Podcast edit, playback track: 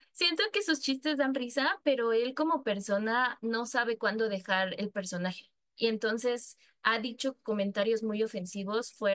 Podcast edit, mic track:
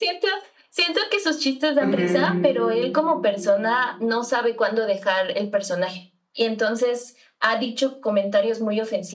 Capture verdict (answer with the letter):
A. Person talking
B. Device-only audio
A